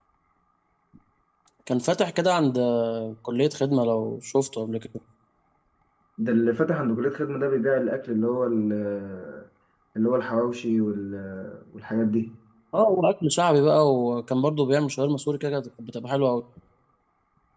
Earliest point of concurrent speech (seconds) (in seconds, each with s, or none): none